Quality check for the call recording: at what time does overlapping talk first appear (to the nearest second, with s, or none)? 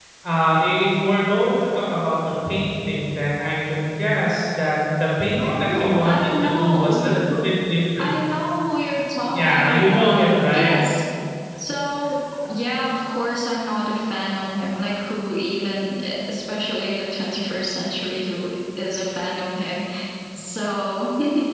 5 s